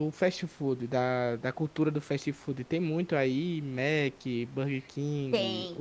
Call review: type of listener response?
taking over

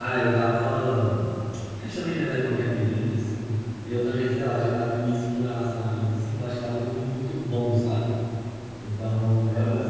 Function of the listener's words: taking over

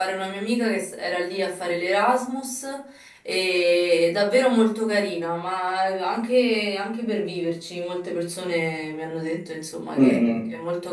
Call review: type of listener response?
taking over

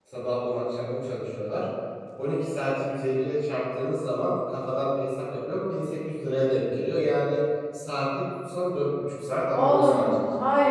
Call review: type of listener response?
taking over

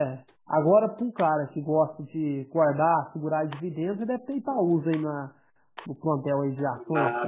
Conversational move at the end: taking over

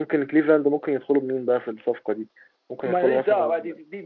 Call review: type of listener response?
taking over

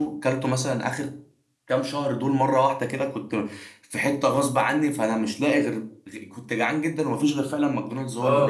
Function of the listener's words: taking over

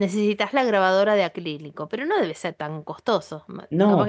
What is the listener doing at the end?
taking over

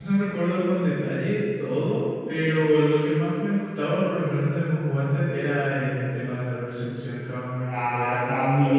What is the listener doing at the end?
taking over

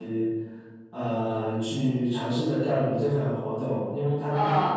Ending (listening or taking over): listening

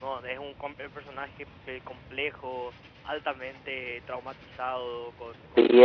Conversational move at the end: taking over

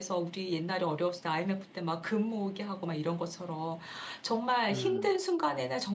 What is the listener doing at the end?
listening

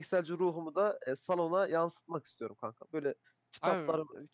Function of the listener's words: listening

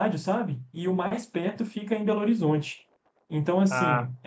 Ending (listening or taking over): listening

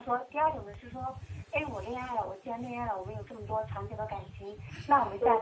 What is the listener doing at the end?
listening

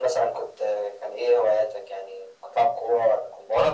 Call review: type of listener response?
taking over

